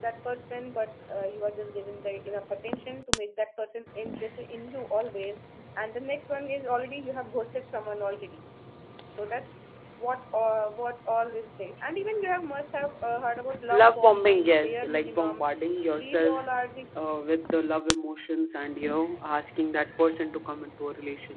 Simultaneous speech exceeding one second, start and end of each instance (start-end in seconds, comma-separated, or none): 13.7-15.5